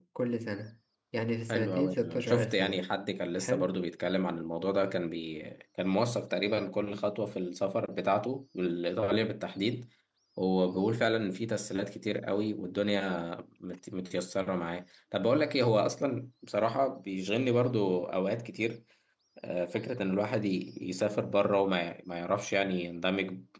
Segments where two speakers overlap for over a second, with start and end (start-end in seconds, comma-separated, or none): 1.5-2.8